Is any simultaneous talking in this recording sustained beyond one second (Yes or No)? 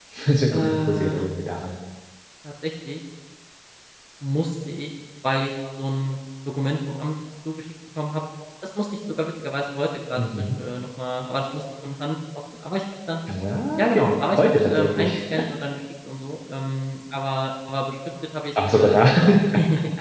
Yes